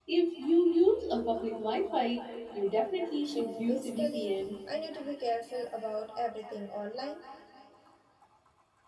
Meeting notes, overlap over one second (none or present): present